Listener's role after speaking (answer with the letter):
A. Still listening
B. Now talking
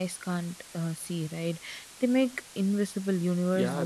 B